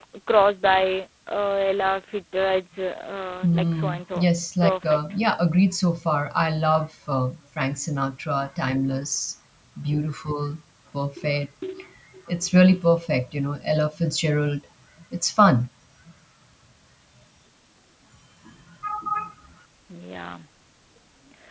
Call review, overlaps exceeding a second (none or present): present